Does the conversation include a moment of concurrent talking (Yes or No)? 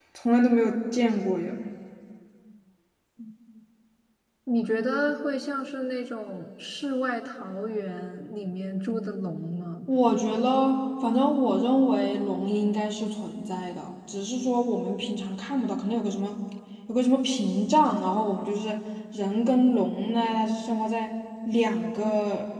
No